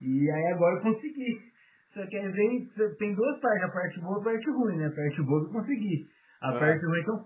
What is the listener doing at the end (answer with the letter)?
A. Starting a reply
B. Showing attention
B